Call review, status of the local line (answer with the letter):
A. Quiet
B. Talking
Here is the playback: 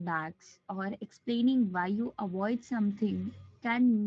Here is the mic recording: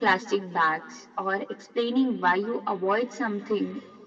A